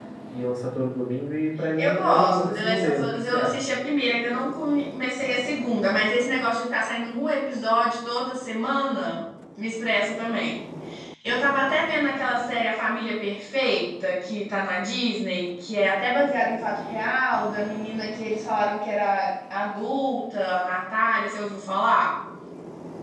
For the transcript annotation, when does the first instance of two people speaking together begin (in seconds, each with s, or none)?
1.8 s